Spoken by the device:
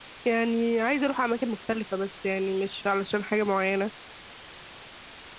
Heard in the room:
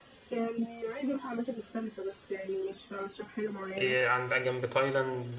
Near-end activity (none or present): present